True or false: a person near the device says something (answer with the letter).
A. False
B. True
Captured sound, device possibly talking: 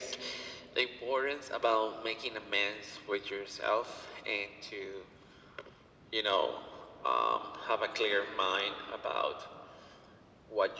A